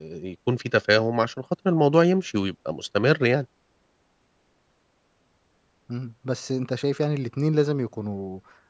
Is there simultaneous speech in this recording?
No

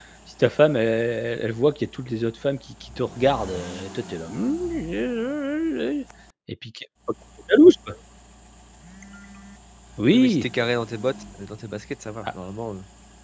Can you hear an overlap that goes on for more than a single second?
No

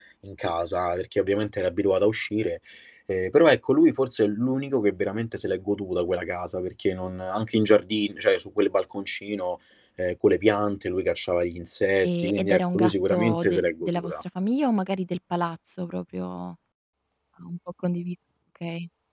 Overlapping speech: Yes, from 12.0 s

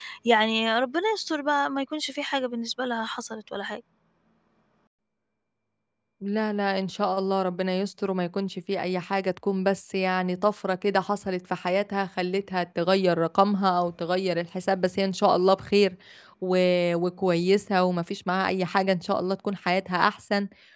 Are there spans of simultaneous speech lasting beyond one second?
No

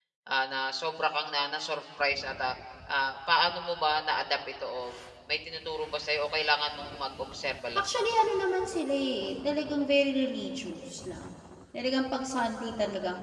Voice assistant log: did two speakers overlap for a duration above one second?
No

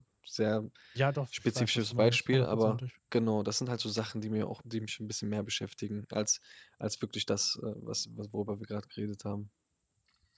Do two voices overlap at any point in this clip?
Yes, from 1.5 s

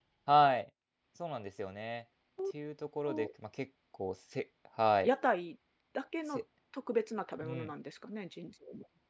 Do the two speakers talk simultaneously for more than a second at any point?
No

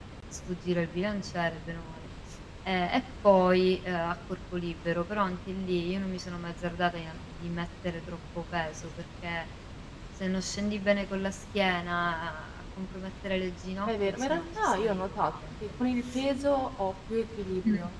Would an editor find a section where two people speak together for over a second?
Yes, from 13.8 s

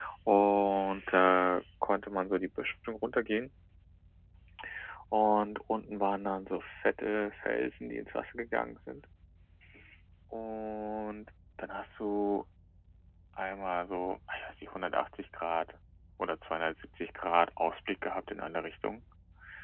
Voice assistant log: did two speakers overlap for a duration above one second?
No

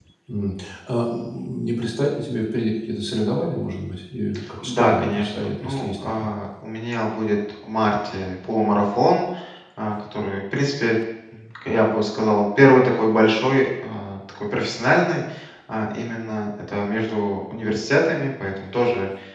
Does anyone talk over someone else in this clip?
Yes, from 4.6 s

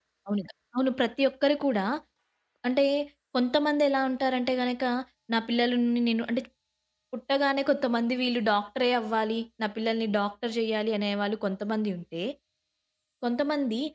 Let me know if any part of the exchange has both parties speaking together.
No

